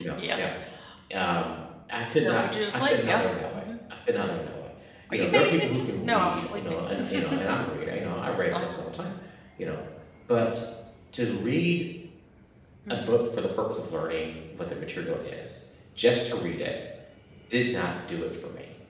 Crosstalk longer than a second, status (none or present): present